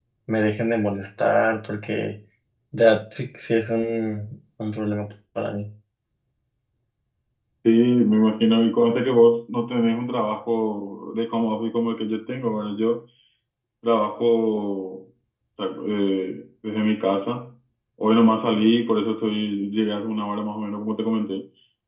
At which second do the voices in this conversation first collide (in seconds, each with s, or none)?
none